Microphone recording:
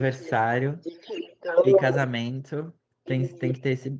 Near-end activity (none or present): present